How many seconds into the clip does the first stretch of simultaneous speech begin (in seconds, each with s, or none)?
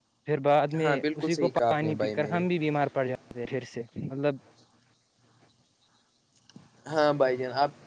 0.8 s